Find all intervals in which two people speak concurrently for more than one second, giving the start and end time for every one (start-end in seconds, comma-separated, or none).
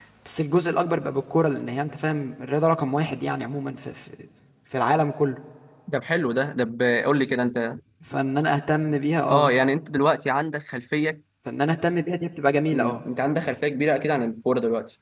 none